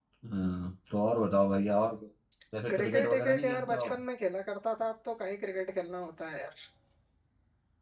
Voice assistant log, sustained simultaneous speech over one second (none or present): present